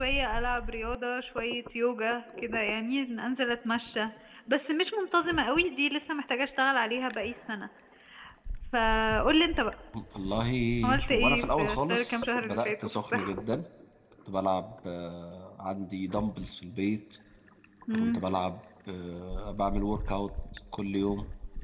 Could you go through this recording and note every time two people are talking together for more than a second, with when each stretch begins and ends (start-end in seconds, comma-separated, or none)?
11.1-13.4